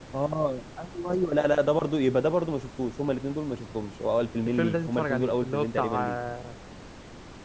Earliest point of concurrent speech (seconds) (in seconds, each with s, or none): 4.6 s